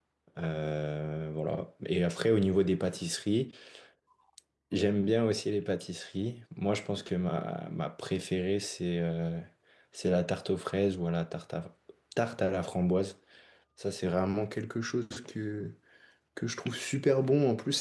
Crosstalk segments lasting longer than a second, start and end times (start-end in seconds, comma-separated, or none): none